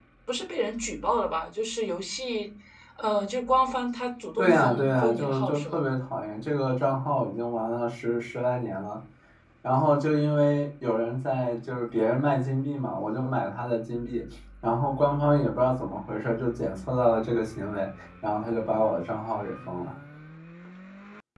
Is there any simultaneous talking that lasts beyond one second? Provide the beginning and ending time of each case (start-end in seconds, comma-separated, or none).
4.4-5.8